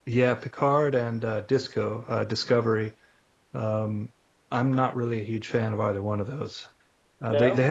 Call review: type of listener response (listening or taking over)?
listening